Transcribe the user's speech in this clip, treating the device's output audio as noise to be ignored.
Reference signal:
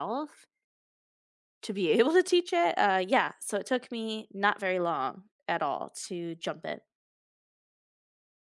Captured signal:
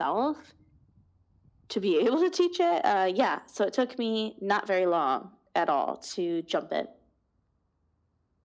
none

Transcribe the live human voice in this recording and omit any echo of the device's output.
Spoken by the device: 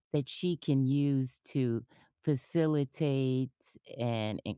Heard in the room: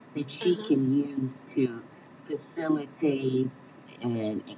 uh-huh.

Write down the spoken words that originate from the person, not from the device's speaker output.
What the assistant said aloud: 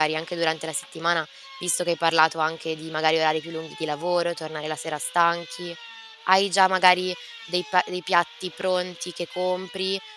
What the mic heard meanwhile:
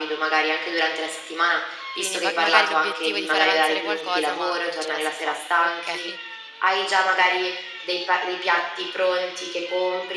Quindi ma magari l'obiettivo è di far avanzare qualcosa, ma non ce la si fa. Okay,

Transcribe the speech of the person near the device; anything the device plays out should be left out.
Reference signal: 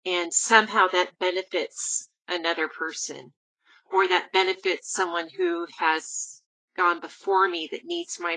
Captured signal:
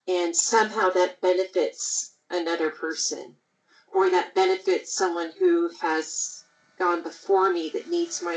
none

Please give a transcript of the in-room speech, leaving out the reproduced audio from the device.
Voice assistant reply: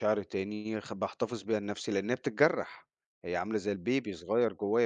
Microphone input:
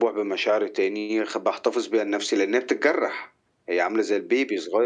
none

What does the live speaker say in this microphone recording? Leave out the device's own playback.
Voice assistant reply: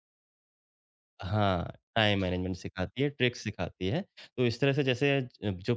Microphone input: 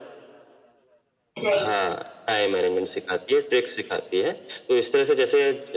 राइट।

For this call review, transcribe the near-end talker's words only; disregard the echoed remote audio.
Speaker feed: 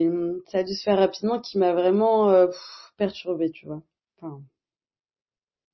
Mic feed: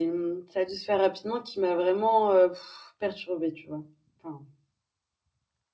none

